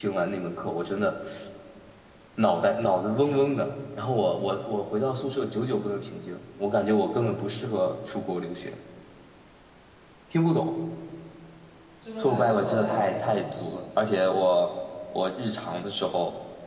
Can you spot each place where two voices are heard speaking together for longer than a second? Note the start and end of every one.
12.2-13.6

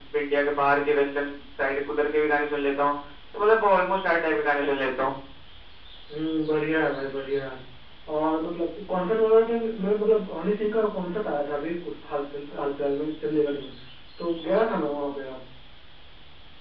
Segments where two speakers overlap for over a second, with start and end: none

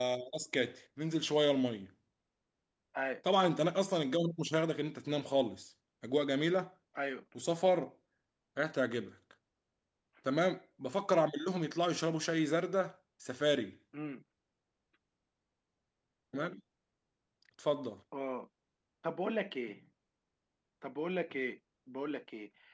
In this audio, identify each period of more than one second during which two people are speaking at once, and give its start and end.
none

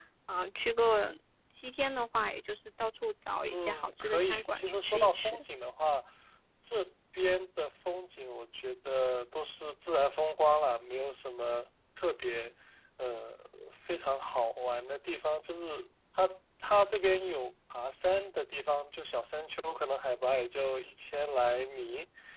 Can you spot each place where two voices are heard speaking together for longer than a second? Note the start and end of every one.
3.5-5.4

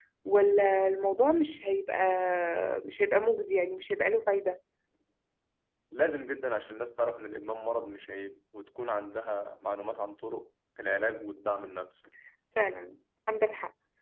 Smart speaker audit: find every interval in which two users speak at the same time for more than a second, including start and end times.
none

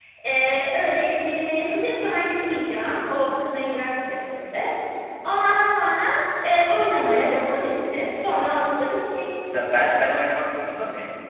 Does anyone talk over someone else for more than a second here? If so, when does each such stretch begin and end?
none

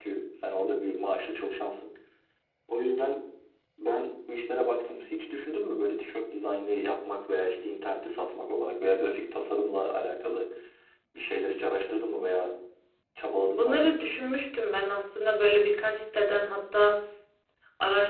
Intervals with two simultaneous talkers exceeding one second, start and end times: none

